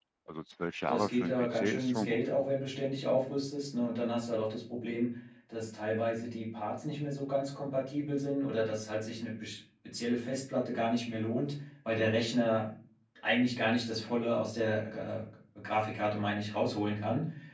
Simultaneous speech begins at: 0.9 s

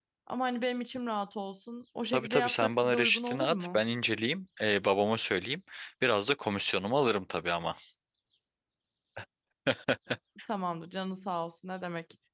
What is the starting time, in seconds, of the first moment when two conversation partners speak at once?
2.1 s

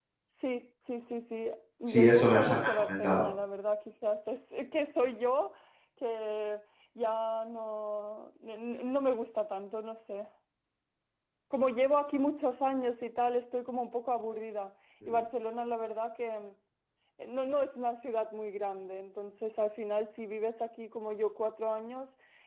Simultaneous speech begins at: 1.9 s

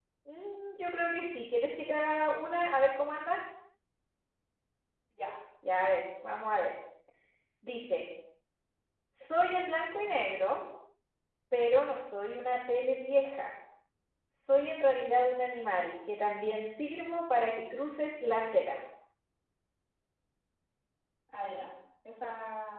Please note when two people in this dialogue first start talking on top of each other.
none

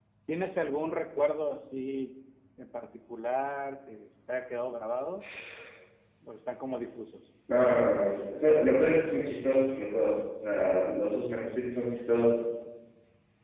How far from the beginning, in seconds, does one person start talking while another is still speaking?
none

